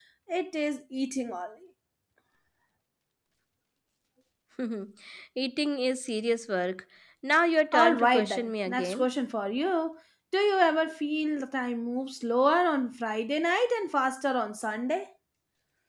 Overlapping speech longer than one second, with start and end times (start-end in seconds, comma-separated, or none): 7.7-9.1